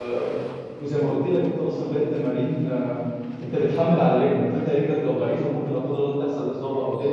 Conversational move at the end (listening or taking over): listening